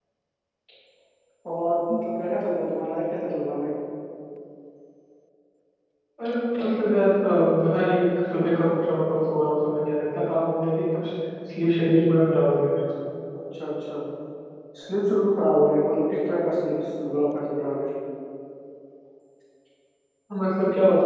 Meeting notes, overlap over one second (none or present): none